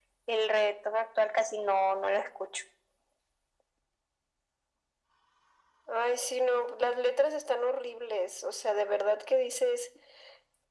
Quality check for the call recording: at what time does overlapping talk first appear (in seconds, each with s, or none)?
none